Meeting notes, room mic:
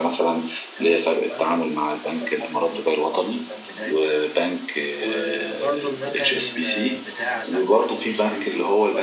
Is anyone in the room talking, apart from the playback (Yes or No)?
Yes